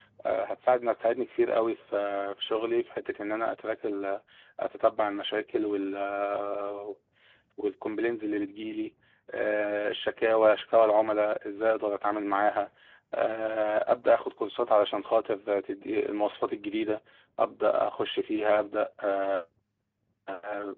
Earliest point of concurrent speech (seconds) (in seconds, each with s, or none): none